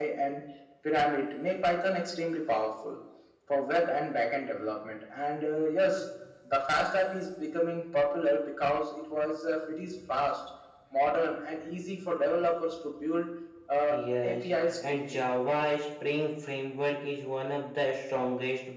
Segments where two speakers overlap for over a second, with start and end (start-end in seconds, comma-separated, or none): 13.9-15.2